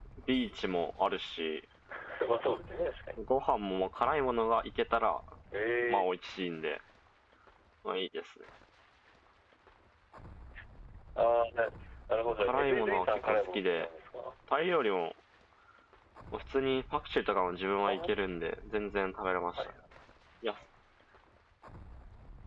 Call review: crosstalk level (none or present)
present